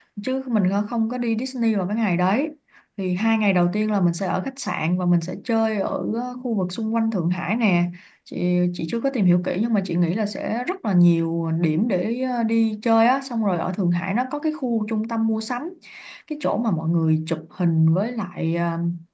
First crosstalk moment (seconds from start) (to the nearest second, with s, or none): none